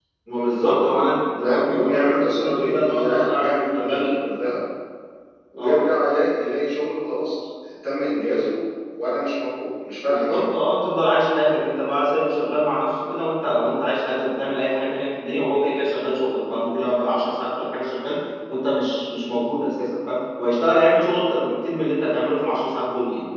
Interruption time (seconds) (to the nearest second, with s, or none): 1 s